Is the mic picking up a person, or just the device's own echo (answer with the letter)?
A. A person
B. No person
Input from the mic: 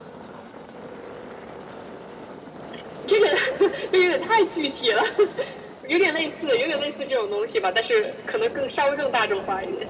B